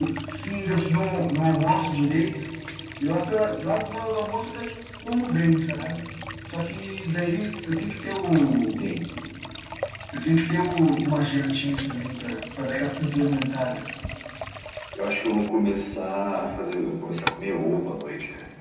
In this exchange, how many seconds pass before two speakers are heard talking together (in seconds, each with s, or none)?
none